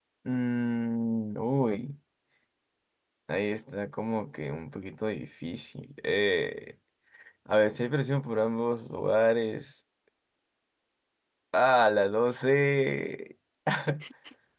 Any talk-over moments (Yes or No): No